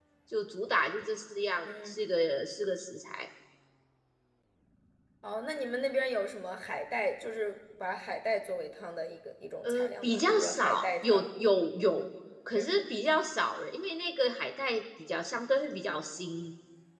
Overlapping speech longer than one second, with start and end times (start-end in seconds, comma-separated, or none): 9.6-11.2